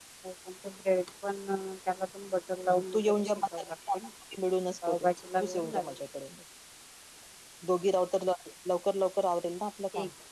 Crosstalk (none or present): present